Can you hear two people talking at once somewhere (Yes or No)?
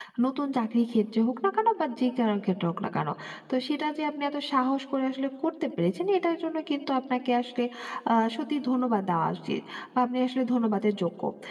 No